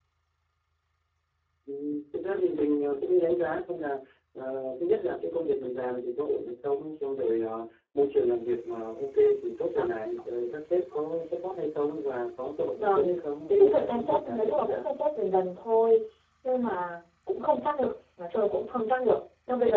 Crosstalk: present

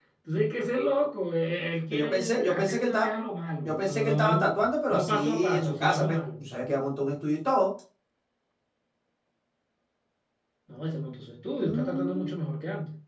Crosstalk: present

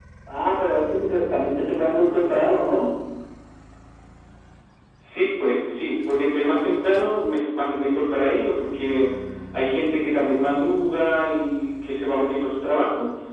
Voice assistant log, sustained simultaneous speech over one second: none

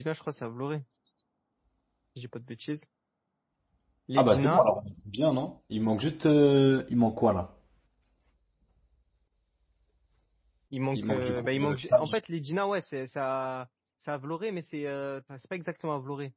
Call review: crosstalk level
present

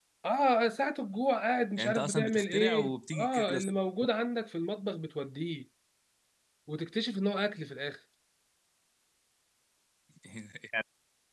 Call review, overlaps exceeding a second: present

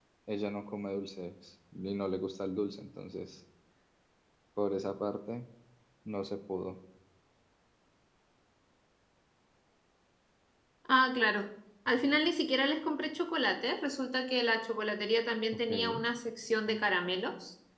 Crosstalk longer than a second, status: none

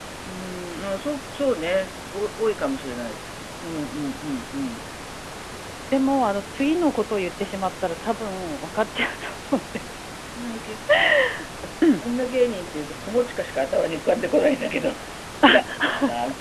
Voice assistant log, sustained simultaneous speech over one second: none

